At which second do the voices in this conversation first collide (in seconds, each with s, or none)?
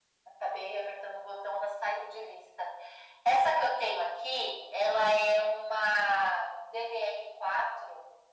none